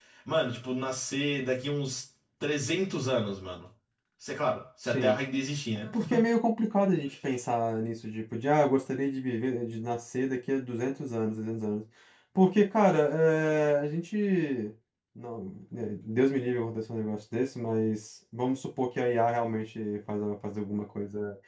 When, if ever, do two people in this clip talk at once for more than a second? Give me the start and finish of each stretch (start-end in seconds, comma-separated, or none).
none